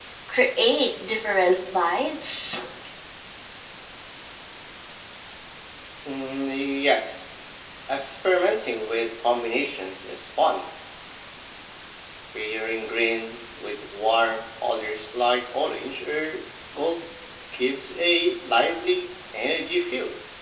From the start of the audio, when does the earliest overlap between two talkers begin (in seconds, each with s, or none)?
none